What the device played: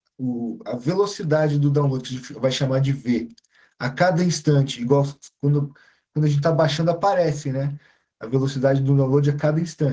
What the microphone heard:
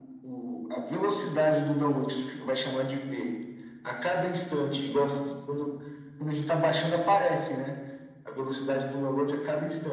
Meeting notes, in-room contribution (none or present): none